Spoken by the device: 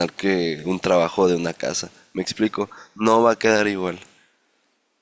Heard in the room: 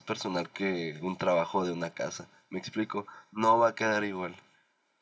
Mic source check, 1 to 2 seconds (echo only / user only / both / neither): echo only